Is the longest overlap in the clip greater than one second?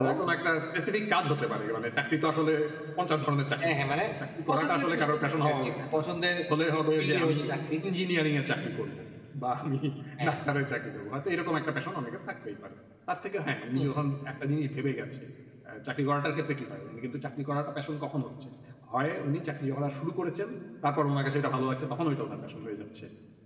Yes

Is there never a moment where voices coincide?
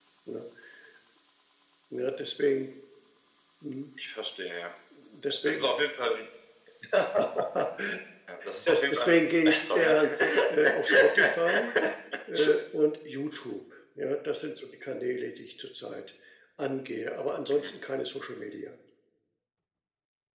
No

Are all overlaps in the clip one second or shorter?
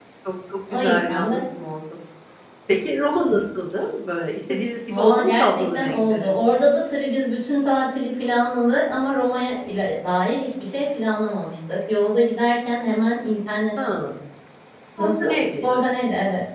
No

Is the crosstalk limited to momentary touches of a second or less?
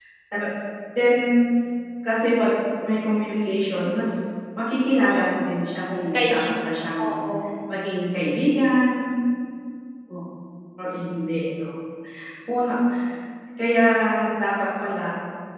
Yes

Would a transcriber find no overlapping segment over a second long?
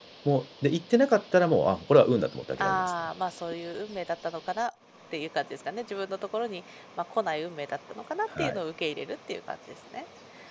Yes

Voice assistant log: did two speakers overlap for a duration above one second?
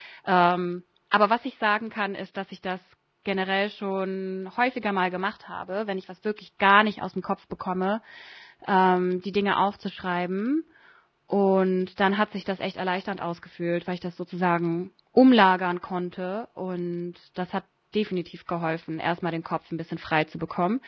No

